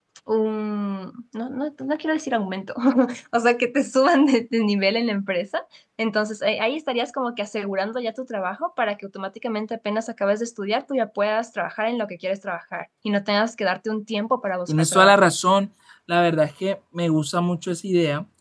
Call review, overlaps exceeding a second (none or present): none